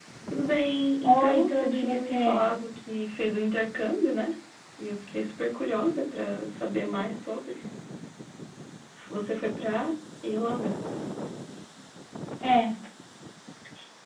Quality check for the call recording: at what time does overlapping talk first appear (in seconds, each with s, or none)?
1.0 s